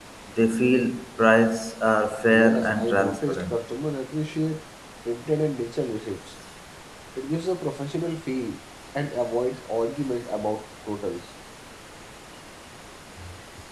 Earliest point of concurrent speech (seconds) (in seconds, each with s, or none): 2.3 s